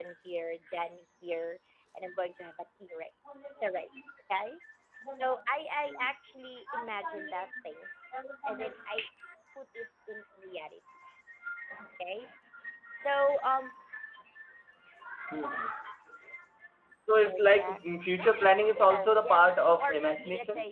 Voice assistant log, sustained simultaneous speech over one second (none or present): present